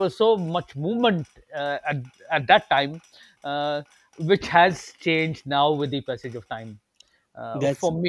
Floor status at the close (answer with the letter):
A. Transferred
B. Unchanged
B